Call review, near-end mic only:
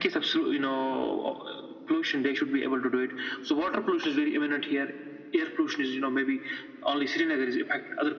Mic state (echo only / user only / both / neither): echo only